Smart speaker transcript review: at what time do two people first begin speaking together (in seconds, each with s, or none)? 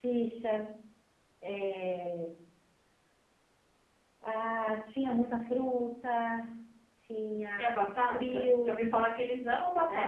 7.6 s